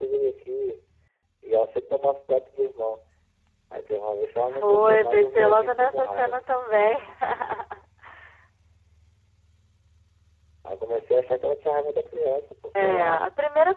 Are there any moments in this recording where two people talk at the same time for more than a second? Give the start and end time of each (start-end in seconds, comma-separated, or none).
4.5-6.4